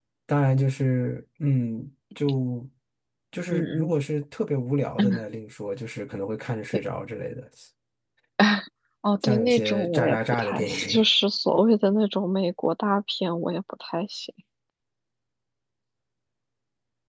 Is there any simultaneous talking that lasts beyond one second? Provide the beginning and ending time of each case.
9.2-11.1

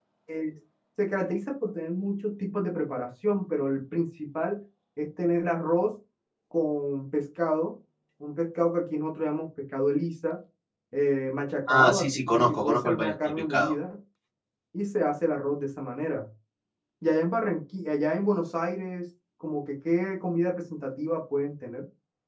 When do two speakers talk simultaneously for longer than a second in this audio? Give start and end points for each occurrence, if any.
11.7-13.7

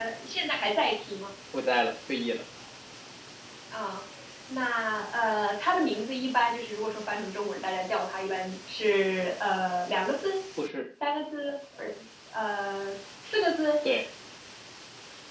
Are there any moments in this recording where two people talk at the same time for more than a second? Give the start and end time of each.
none

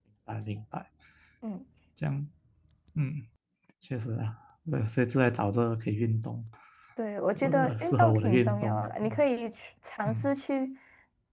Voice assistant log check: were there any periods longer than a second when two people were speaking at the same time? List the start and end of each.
7.4-9.2

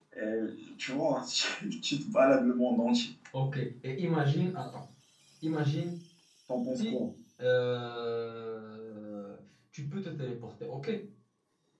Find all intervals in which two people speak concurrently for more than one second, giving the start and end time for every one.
none

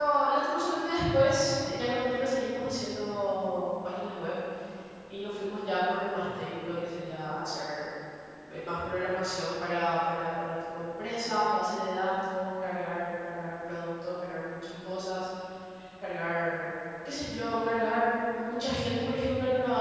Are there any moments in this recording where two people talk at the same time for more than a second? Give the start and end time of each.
none

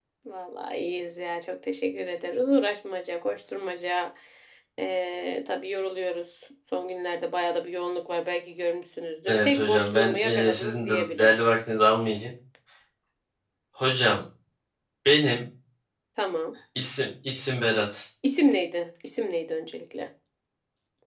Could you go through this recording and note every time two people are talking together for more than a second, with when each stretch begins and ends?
9.3-11.4

